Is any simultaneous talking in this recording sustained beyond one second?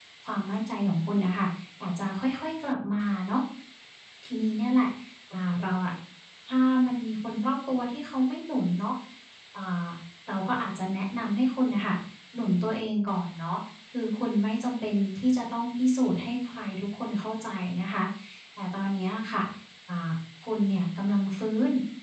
No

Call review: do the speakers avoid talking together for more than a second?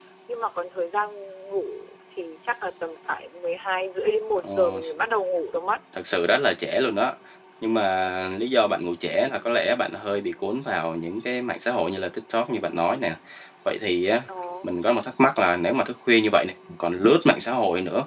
Yes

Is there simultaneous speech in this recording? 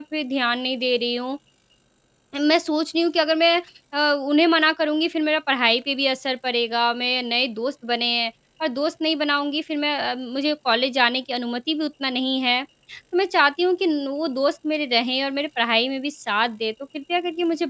No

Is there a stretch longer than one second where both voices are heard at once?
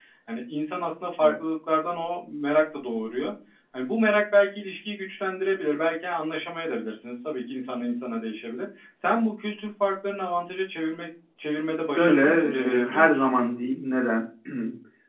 Yes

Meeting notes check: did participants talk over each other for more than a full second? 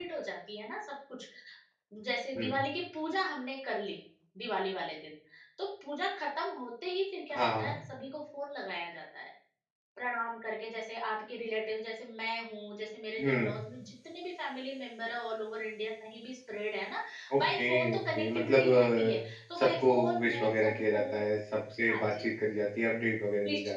Yes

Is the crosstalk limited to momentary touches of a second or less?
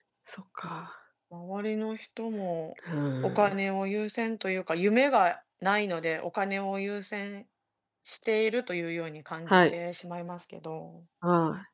Yes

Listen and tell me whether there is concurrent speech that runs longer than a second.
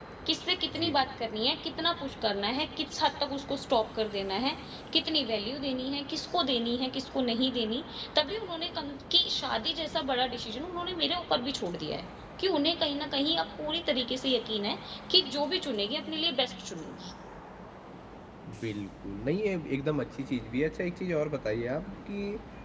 No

